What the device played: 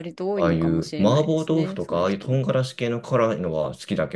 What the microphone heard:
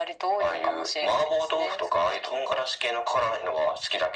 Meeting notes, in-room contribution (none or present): none